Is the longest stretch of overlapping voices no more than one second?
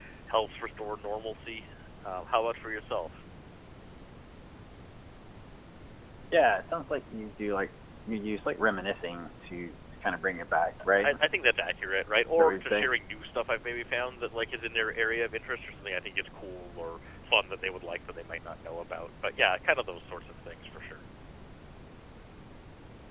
Yes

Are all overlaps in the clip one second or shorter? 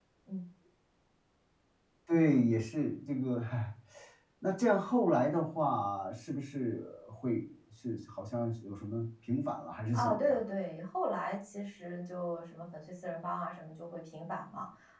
Yes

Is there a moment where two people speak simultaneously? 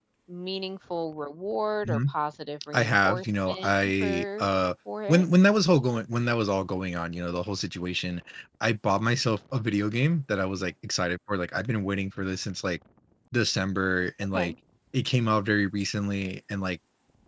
Yes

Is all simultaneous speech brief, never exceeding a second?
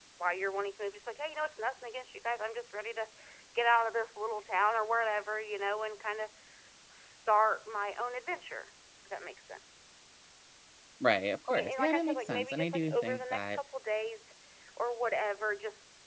No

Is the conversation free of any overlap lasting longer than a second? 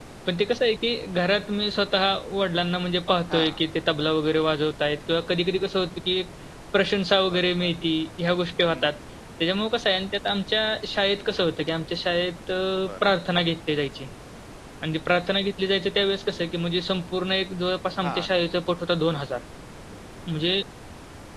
Yes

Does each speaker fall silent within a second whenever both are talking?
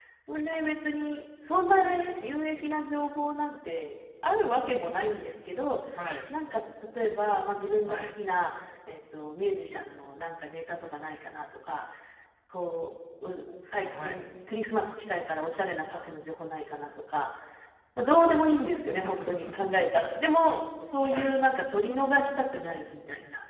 Yes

